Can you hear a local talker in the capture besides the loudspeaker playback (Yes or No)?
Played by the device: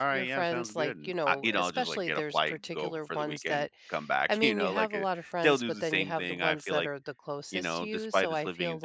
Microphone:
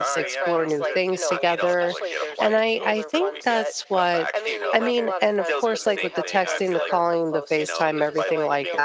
Yes